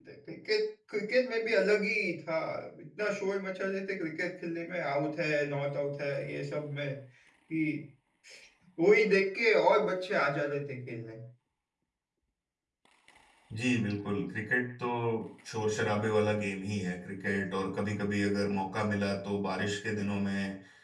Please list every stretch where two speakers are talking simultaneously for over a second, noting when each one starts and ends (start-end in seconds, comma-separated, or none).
none